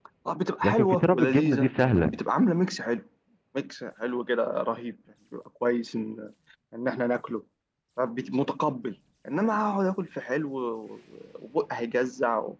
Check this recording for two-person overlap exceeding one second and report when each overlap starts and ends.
0.6-2.2

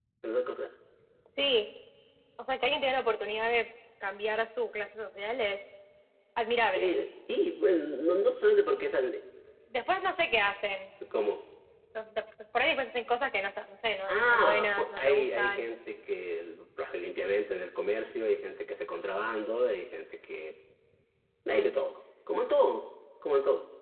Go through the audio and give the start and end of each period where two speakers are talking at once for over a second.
14.1-15.7

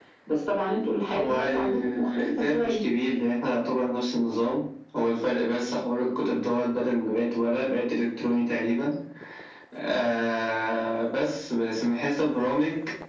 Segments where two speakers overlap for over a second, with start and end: 1.1-2.8

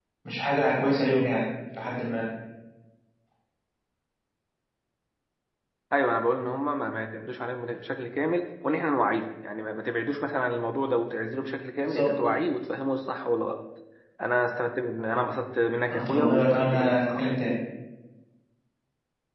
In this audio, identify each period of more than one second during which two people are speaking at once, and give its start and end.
16.1-17.3

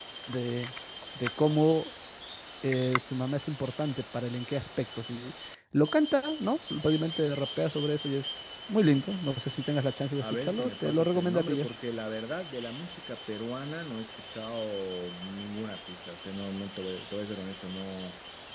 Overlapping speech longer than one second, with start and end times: 10.2-11.7

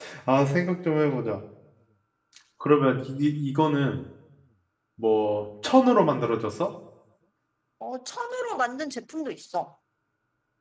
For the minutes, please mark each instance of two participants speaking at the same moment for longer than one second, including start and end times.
none

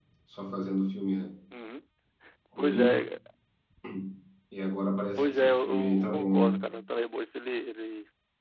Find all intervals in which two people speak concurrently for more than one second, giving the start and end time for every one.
5.2-6.5

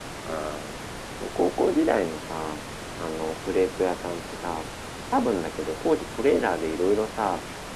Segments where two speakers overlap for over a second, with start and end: none

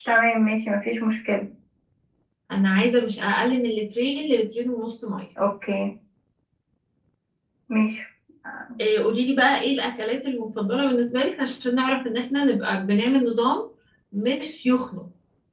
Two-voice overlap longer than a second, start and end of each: none

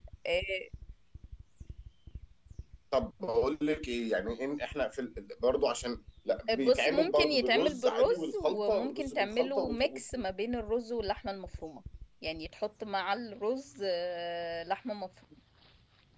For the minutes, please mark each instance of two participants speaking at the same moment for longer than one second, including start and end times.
6.6-10.2

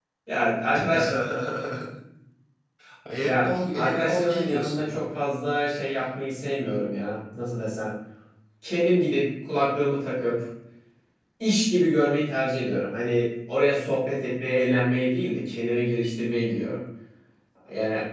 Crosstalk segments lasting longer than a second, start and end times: 3.2-5.0

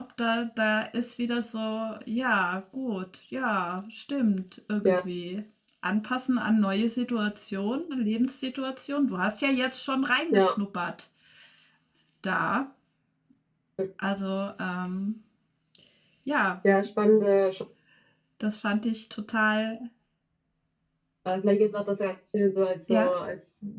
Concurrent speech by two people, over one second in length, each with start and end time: none

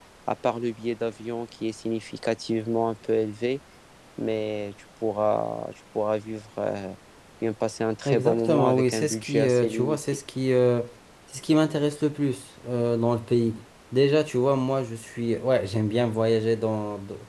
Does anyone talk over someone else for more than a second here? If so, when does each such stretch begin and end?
8.1-10.0

